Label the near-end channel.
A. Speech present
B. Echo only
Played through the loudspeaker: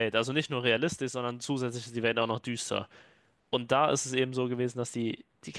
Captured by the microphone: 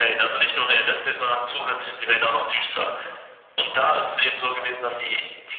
B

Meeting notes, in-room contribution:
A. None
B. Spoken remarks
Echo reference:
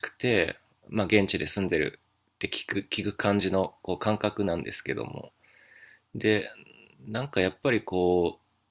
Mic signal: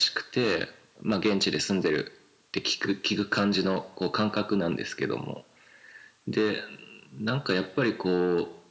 A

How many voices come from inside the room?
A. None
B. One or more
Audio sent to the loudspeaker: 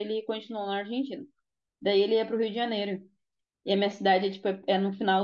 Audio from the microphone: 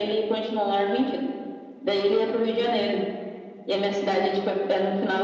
A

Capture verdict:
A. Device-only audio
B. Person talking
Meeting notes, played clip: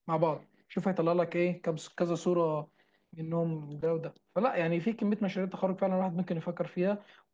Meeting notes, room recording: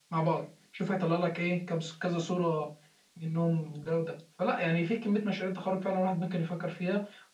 A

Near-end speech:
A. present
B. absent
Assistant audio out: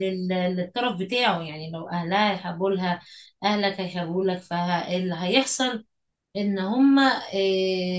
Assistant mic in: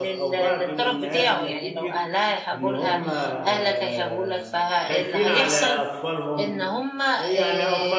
A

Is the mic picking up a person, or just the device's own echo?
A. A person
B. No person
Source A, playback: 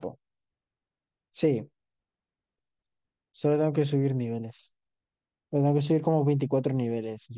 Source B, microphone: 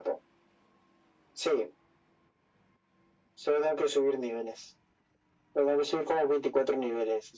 B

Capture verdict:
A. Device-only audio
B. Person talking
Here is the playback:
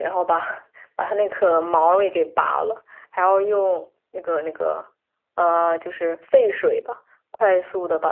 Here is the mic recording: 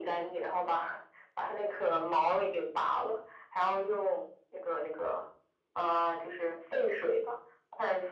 A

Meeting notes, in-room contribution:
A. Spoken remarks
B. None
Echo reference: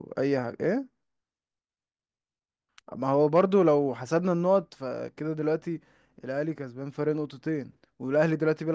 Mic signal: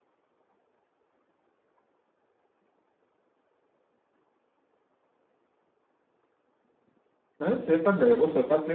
A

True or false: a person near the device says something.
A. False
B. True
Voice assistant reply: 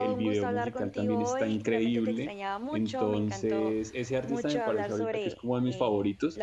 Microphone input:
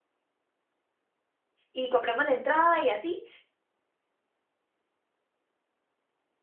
B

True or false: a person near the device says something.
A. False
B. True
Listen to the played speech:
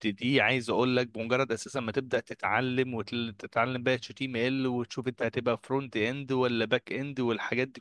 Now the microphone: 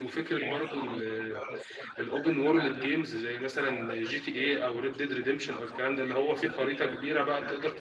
B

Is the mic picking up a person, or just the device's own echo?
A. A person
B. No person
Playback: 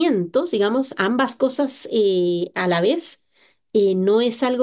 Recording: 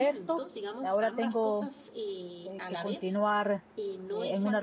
A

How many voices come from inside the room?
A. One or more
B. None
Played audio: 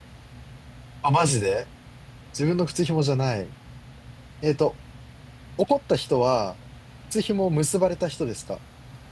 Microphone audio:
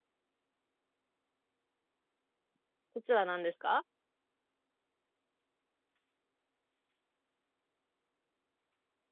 A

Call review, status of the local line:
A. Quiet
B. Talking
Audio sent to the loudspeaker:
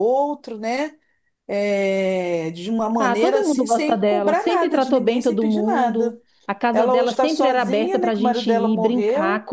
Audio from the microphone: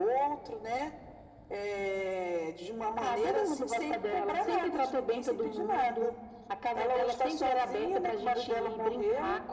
A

